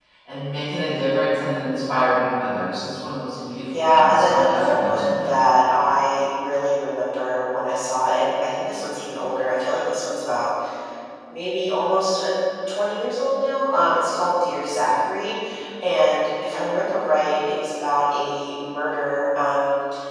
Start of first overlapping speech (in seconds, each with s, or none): 3.7 s